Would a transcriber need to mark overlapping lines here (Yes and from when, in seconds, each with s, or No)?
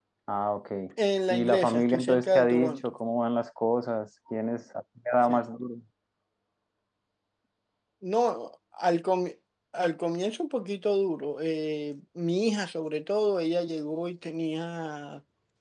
Yes, from 1.3 s